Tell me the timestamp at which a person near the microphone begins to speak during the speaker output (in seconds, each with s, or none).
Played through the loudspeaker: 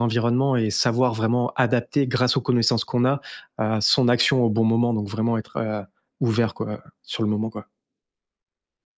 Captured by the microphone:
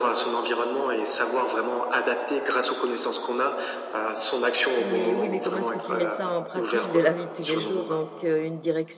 4.8 s